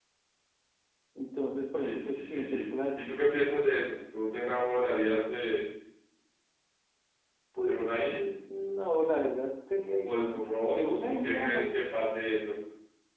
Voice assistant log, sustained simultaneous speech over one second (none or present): present